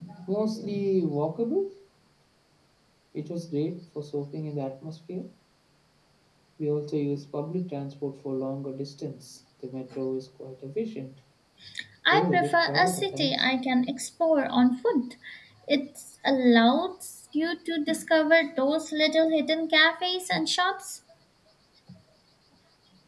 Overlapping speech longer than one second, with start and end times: 12.1-13.4

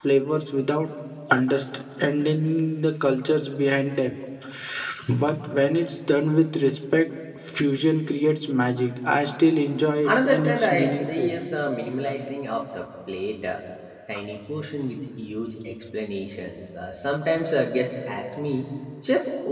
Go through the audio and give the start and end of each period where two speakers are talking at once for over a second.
10.1-11.3

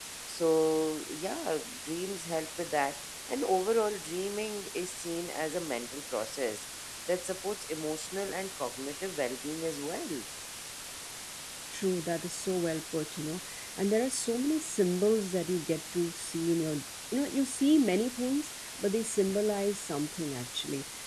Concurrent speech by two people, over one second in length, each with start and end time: none

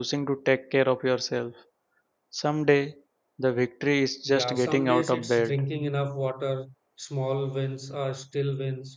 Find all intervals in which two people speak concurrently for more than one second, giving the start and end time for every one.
4.3-5.6

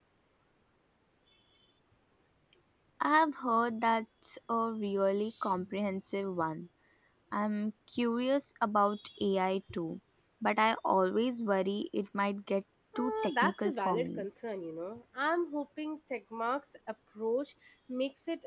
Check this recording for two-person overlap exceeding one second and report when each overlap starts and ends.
13.0-14.2

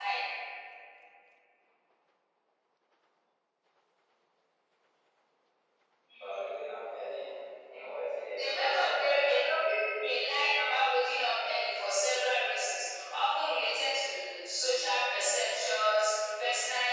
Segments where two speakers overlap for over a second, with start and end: 8.4-9.6

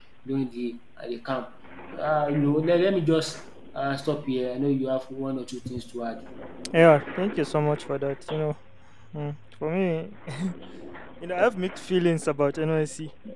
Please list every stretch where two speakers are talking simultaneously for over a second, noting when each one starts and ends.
none

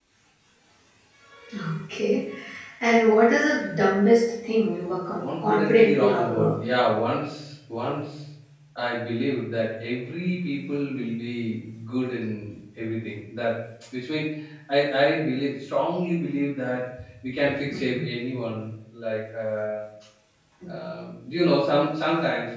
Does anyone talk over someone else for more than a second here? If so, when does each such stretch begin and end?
5.1-6.6

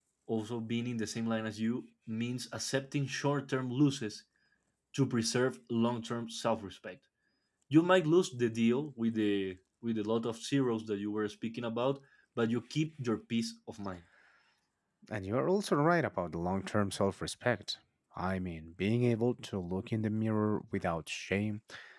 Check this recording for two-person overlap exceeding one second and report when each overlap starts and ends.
none

